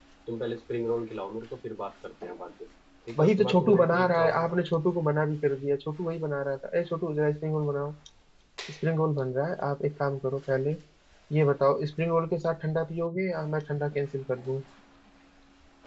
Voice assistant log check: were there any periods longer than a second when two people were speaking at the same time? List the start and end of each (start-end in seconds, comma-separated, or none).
3.2-4.5